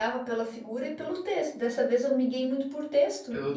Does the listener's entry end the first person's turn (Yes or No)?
No